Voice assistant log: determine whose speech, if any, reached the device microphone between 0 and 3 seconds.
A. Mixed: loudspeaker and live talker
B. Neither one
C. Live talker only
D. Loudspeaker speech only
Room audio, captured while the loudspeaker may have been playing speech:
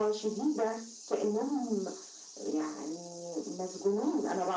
D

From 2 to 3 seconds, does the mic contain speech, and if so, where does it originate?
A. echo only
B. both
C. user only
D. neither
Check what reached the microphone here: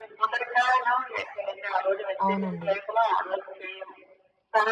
B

